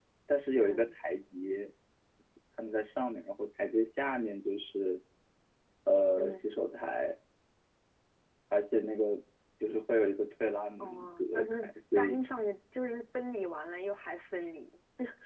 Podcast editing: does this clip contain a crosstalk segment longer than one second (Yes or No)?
Yes